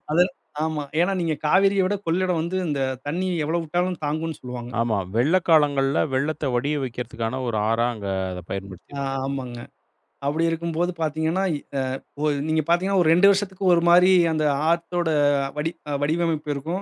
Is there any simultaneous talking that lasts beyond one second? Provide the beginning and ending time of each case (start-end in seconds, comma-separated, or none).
none